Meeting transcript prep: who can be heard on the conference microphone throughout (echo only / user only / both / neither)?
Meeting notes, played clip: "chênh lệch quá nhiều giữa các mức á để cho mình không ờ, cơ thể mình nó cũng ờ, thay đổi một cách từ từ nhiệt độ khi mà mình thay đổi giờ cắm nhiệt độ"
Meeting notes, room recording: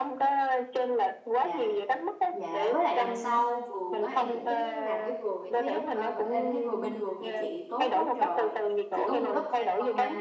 both